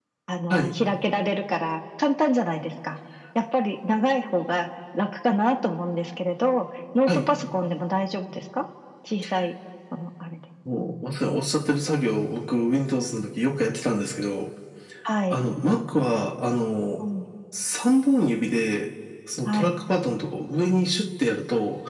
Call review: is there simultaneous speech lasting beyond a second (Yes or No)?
No